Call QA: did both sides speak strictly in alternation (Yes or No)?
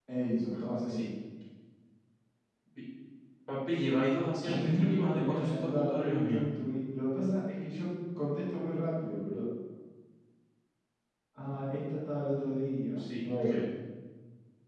No